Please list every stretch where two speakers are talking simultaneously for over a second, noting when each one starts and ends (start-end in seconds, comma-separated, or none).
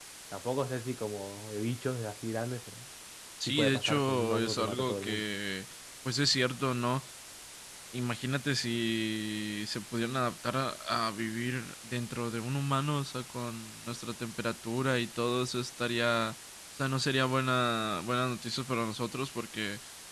3.5-5.2